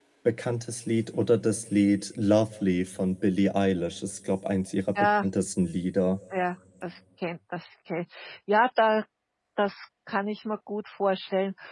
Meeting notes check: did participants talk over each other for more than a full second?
No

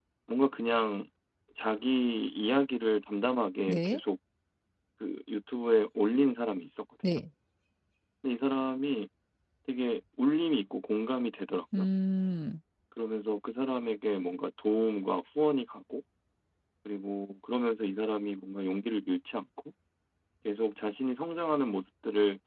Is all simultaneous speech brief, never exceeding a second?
Yes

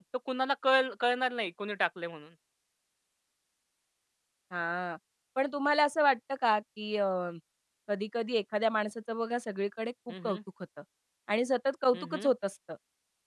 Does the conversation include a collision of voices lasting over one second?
No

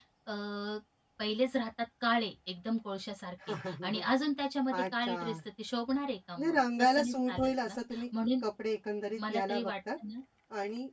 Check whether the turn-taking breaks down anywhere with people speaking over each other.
Yes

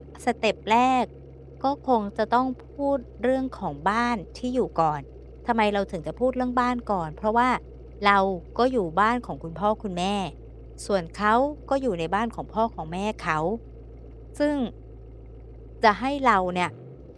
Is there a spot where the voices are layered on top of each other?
No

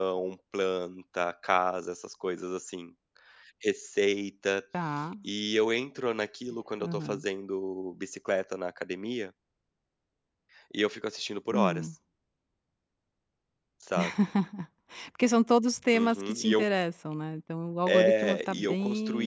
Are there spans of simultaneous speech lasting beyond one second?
Yes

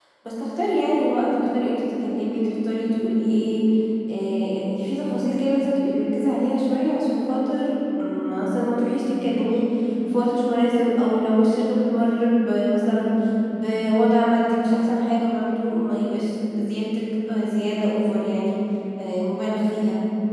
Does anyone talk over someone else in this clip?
No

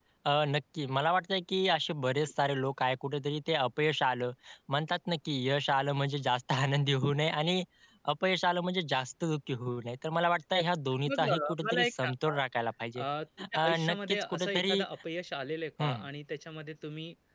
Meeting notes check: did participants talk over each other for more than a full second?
Yes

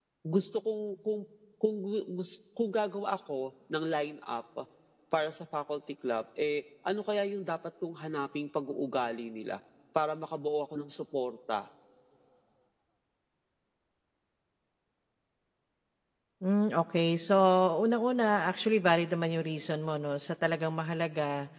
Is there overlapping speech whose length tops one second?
No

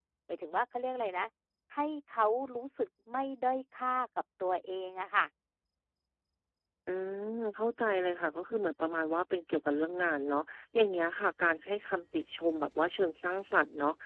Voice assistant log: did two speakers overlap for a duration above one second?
No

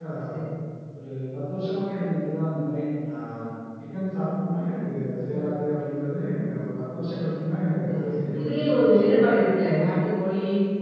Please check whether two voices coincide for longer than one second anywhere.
Yes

